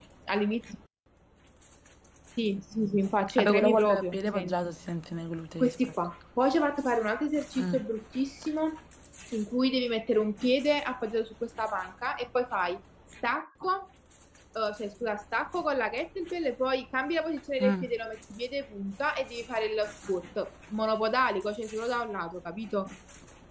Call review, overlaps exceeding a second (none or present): present